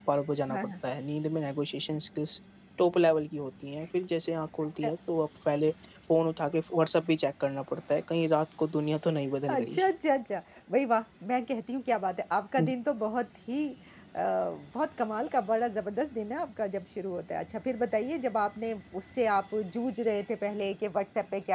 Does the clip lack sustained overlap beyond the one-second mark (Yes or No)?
Yes